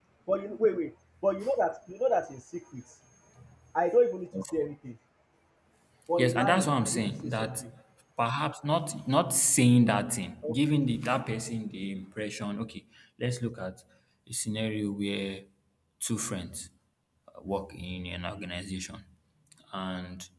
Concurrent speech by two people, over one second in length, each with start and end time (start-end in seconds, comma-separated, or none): 6.2-7.6